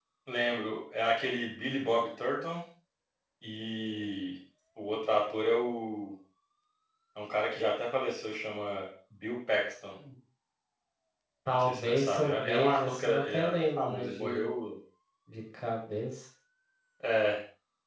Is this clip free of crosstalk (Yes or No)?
No